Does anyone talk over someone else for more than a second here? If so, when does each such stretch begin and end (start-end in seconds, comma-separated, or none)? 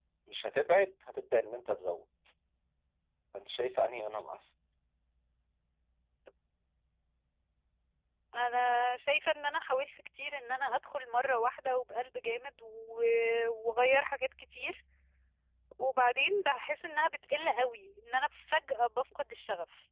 none